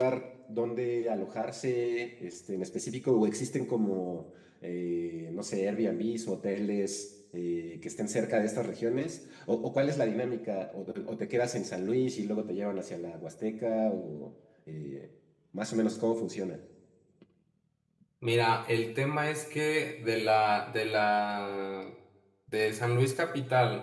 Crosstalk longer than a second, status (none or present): none